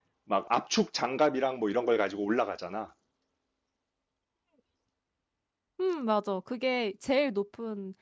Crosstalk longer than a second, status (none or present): none